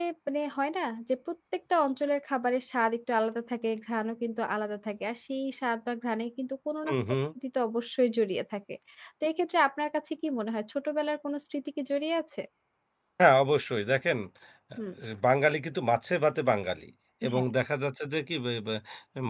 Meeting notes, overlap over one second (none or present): none